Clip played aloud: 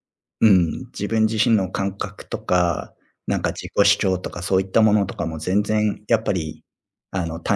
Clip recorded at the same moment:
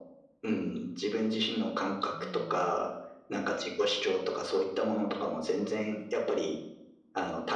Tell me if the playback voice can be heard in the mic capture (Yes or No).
Yes